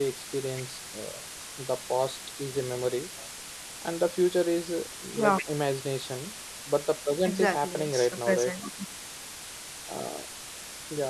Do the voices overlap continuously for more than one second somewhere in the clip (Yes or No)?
Yes